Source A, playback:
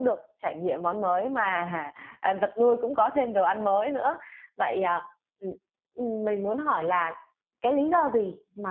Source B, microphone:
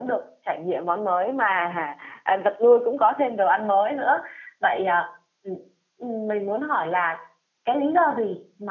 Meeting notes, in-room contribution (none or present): none